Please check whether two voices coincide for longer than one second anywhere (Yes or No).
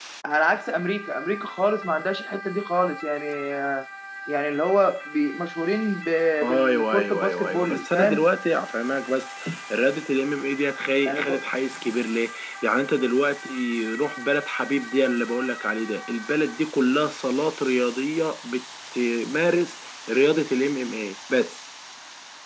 Yes